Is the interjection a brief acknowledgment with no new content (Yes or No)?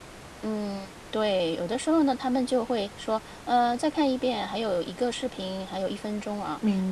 Yes